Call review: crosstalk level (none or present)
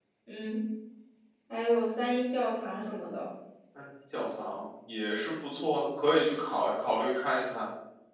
none